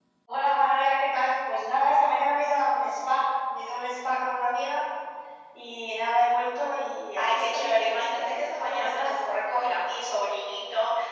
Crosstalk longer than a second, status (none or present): present